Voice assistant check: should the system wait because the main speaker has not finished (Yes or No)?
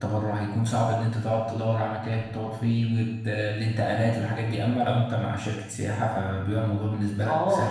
No